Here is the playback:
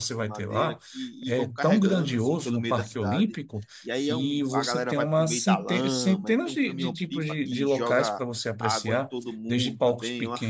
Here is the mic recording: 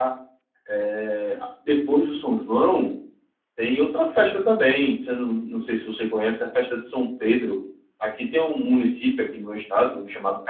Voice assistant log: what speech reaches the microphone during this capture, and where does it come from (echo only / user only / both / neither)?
user only